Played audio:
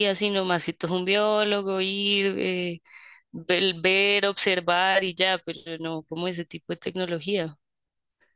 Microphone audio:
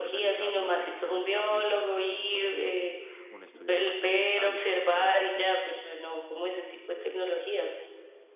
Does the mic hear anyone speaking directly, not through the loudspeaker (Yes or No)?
Yes